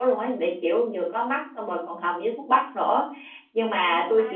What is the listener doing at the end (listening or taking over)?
listening